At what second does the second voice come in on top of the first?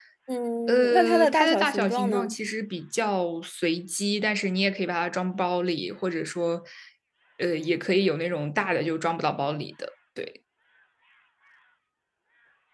1 s

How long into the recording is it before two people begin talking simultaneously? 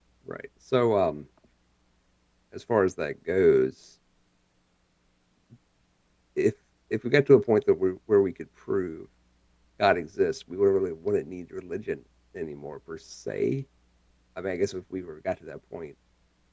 none

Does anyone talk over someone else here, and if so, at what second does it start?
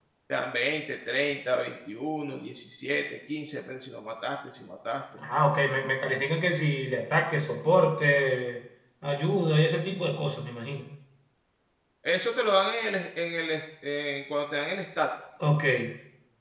none

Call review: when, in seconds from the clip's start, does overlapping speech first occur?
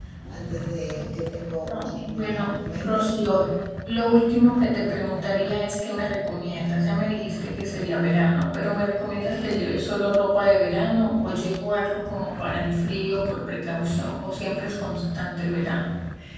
2 s

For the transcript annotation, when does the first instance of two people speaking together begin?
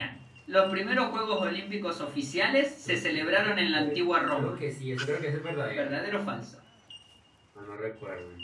3 s

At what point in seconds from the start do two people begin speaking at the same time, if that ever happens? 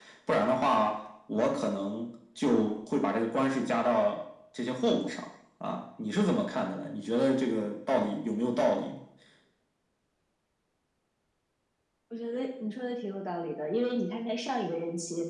none

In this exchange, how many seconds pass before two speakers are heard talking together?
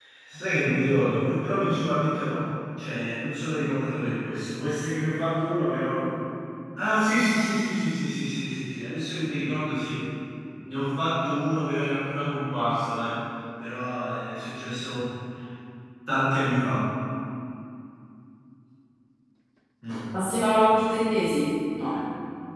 none

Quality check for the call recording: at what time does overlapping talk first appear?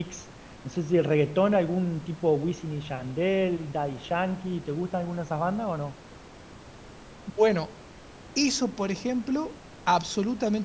none

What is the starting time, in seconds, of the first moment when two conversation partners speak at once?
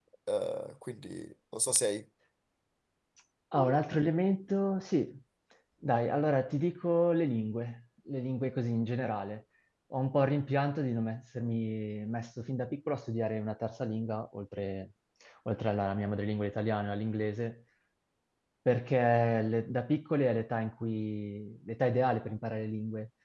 none

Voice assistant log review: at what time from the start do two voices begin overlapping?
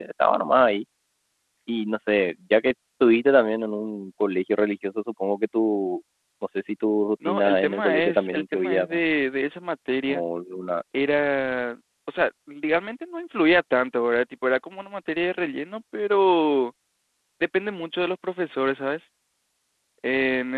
7 s

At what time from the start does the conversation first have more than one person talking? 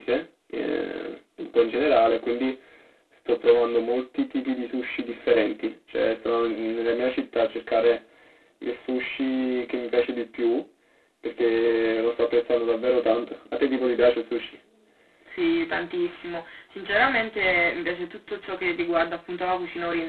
none

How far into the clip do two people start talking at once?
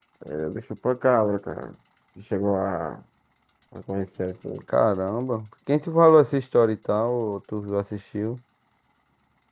none

